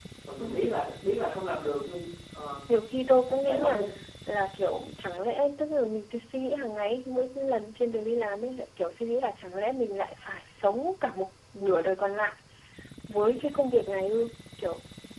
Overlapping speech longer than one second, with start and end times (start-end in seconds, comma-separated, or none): none